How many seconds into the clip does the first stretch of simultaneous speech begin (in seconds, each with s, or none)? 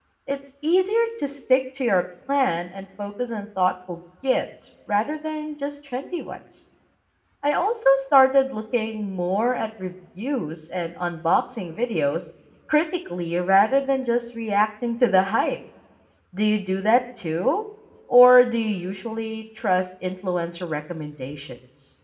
none